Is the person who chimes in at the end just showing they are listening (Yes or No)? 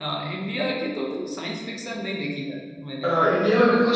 No